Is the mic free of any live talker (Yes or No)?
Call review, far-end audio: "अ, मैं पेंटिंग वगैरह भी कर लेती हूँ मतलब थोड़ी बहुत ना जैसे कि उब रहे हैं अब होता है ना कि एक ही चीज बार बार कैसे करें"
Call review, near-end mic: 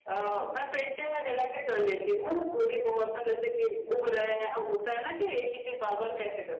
Yes